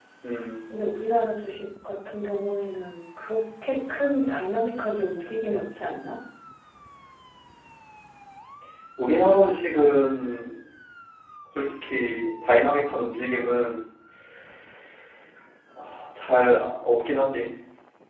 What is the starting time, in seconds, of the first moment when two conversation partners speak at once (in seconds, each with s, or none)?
none